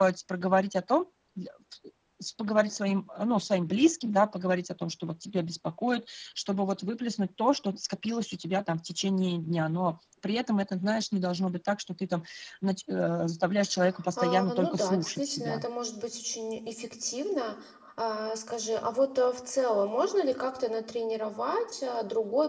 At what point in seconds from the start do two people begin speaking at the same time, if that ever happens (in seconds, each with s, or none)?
14.2 s